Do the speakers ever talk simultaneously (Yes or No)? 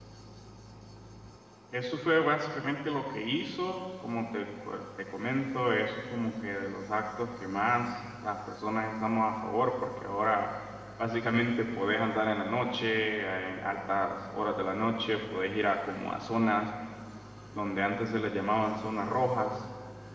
No